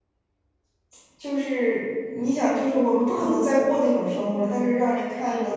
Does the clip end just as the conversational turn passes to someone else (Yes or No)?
No